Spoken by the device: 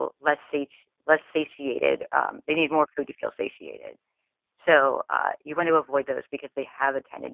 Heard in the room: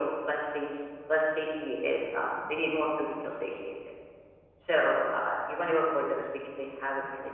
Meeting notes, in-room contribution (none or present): none